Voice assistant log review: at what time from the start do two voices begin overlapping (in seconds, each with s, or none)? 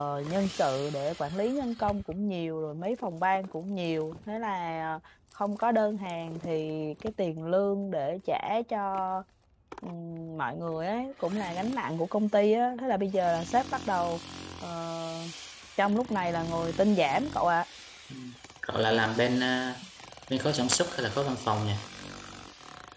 none